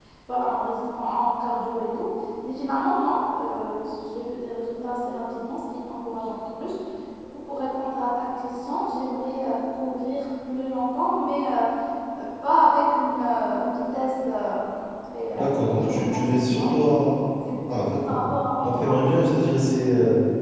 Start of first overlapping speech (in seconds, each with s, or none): 15.3 s